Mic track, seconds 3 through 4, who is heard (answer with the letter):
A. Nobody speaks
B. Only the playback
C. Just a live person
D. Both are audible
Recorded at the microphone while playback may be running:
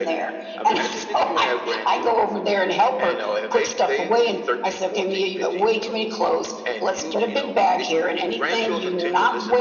B